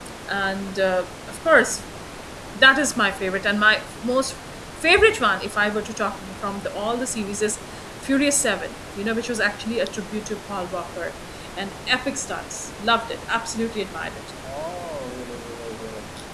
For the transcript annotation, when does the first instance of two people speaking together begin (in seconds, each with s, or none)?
none